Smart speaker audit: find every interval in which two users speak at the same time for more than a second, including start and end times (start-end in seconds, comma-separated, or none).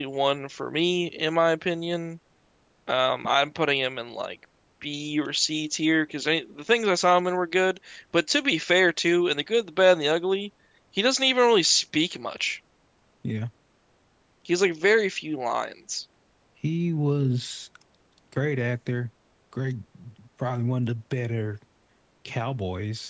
none